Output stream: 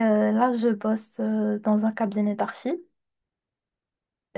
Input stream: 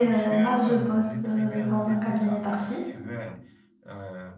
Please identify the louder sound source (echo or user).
echo